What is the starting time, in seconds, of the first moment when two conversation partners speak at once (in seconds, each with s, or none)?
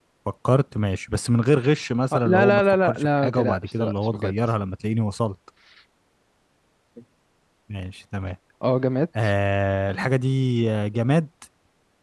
2.1 s